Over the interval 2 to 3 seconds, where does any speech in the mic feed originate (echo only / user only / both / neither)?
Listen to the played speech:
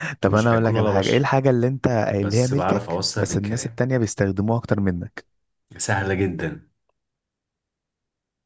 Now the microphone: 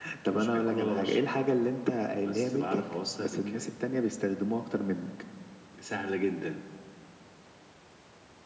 echo only